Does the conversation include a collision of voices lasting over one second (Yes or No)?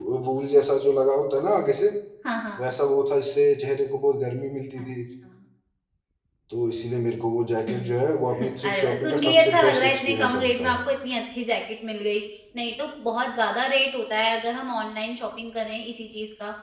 Yes